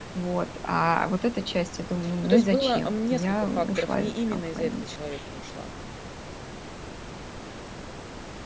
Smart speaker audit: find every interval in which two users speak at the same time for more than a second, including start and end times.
2.2-4.8

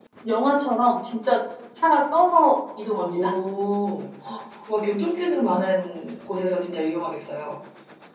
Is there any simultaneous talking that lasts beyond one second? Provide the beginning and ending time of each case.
none

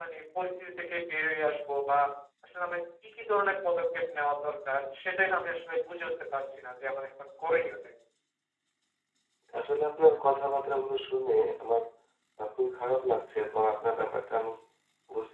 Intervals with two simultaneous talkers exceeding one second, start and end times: none

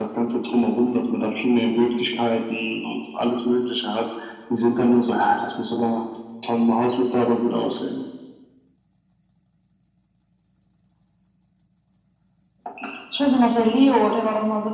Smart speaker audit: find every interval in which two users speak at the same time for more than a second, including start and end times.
none

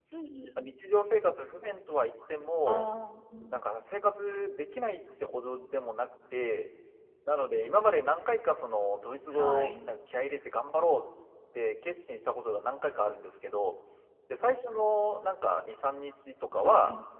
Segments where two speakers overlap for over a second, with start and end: none

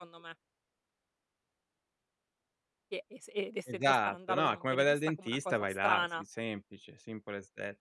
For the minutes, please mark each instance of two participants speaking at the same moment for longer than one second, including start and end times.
3.7-6.2

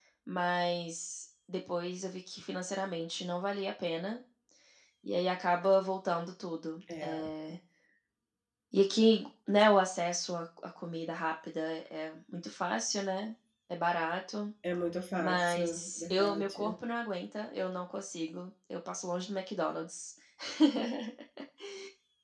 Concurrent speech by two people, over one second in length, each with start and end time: 15.2-16.7

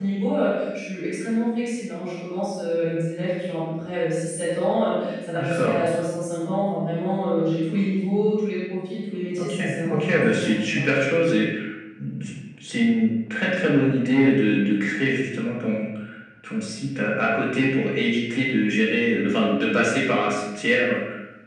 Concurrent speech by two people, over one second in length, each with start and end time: 9.4-10.8

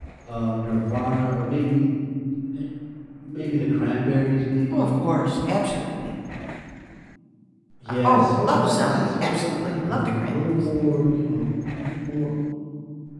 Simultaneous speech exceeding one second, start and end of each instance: 7.9-10.5

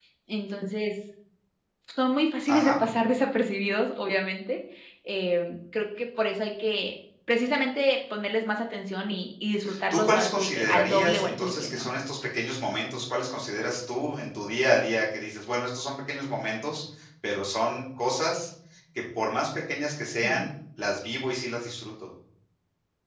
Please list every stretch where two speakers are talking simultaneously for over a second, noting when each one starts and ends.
9.9-11.9

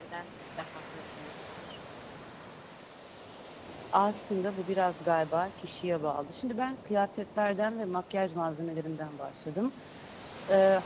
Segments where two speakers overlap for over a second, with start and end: none

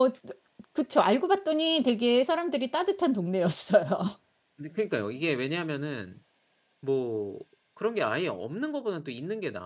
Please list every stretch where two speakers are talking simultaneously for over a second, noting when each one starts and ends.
none

